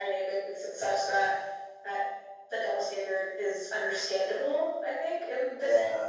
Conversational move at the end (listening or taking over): taking over